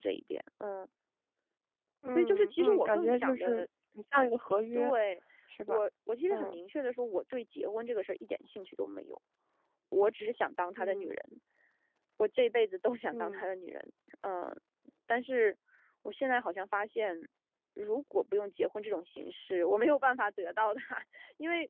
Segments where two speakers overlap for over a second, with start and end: 2.1-3.6

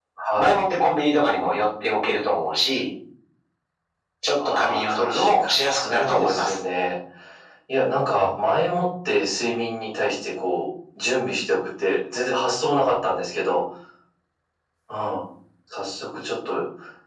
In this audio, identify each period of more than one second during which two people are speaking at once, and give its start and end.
4.5-6.5

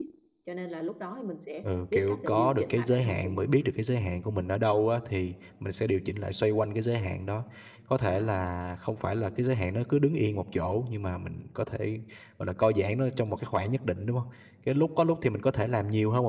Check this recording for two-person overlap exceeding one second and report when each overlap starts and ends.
1.9-3.5

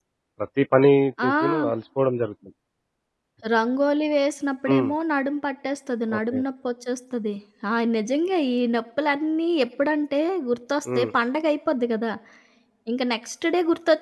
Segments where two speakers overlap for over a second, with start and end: none

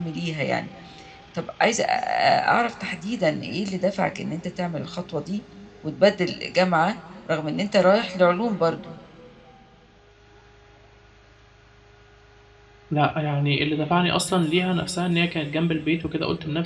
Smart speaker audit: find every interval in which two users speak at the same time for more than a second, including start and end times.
none

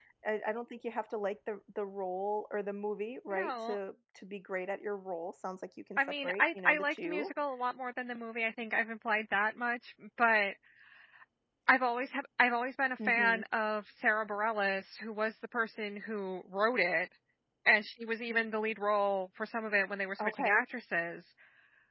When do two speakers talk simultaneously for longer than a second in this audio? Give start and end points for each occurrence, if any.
6.0-7.3

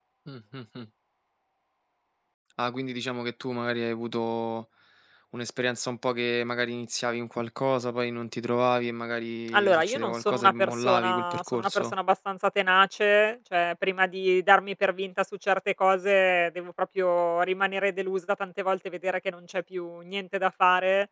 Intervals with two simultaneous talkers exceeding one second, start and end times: 9.5-11.9

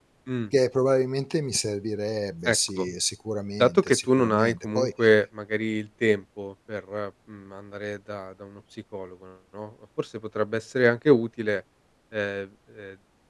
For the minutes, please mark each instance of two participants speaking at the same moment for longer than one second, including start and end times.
3.6-4.9

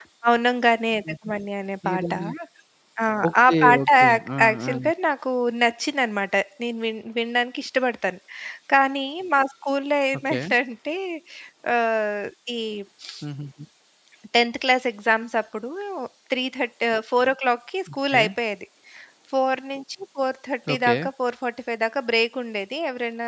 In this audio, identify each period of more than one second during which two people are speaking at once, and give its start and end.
3.4-4.7

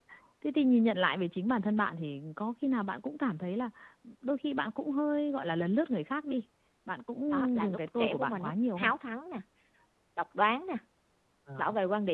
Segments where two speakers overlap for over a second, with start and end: 7.6-8.9

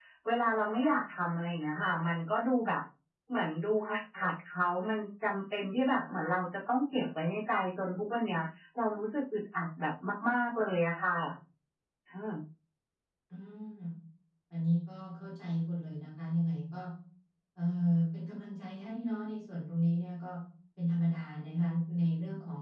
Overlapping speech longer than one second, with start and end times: none

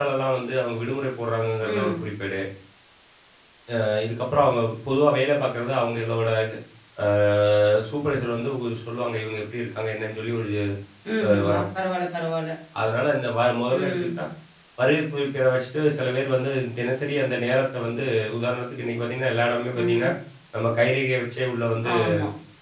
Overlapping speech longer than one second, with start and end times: none

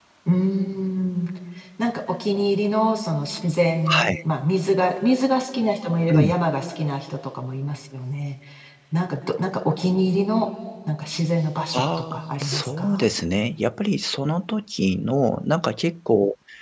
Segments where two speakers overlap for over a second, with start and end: 11.7-13.0

